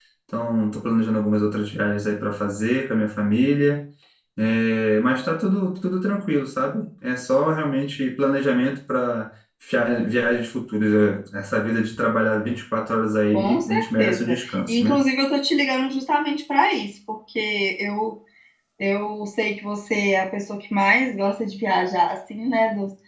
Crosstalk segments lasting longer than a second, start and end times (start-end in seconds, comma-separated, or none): 13.3-15.0